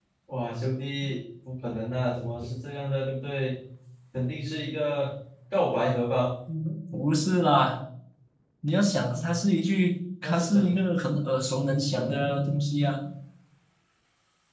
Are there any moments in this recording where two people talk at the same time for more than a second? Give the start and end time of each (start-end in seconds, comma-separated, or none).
none